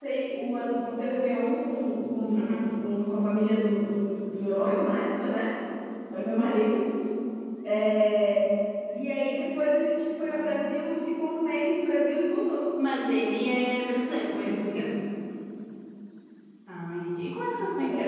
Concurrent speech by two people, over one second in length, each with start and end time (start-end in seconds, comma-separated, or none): none